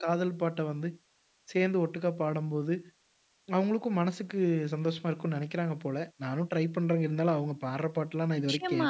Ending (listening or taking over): taking over